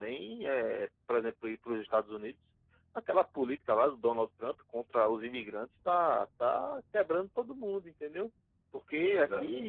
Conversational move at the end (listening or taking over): listening